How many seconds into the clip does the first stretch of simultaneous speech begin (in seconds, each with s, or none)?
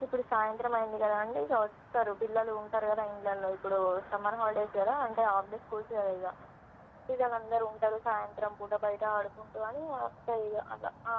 none